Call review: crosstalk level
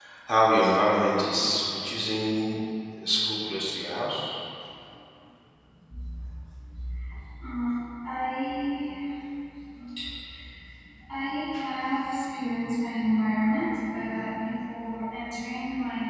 none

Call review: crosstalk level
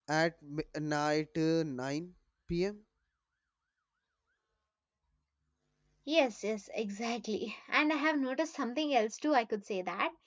none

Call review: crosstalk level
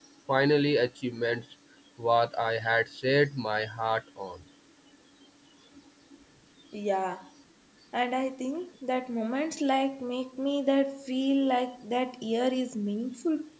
none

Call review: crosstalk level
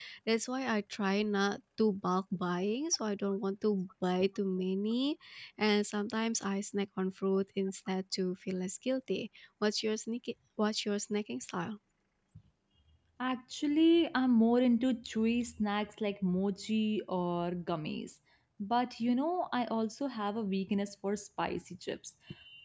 none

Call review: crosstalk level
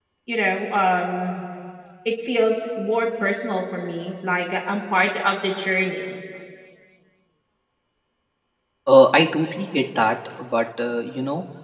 none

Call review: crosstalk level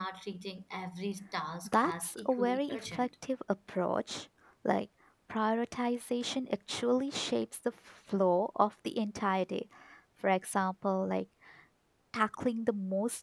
present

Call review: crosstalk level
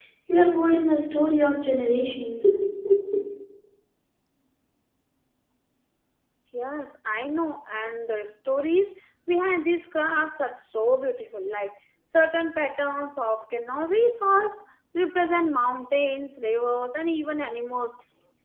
none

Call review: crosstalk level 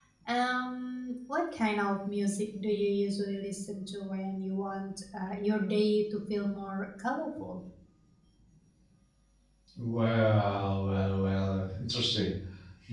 none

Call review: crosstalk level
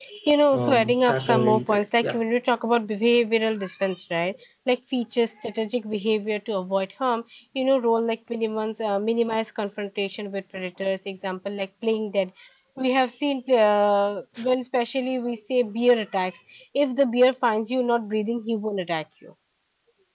present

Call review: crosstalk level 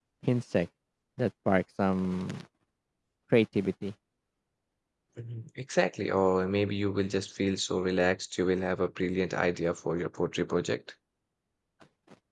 none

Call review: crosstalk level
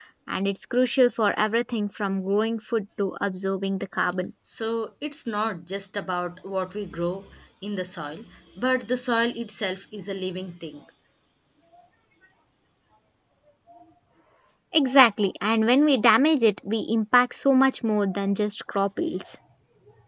none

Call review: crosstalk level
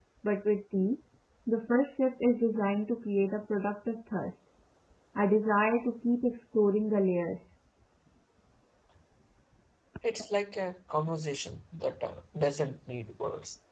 none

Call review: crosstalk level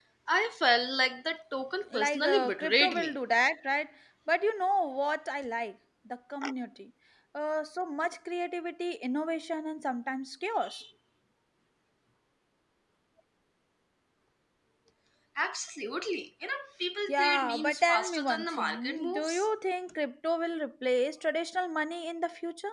present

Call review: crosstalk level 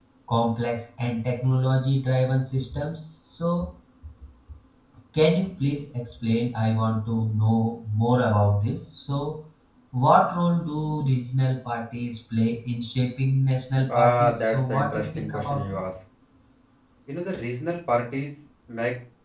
present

